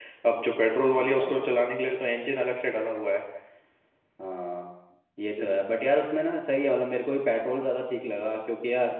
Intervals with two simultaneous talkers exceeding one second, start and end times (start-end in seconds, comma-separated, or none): none